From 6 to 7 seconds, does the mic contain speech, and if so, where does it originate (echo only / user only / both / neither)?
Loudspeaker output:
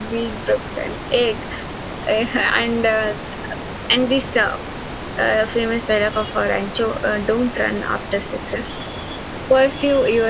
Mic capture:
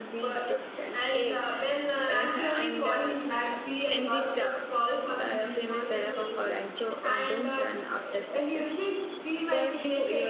both